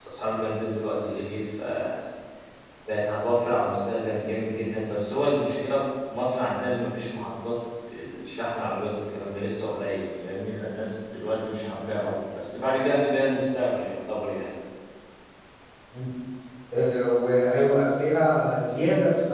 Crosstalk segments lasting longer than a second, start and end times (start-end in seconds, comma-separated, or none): none